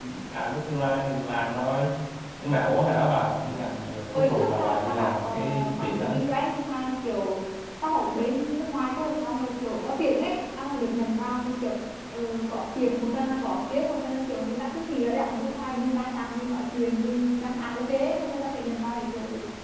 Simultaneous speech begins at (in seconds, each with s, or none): 4.1 s